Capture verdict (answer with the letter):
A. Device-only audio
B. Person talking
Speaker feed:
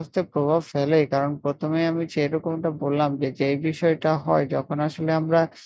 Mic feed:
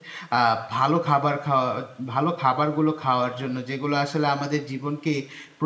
B